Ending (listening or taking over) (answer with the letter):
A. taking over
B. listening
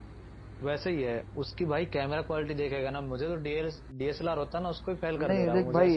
A